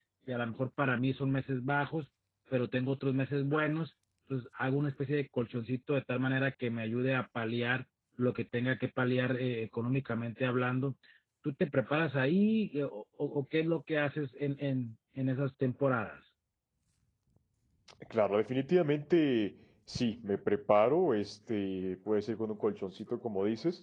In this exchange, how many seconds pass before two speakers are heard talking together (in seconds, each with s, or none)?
none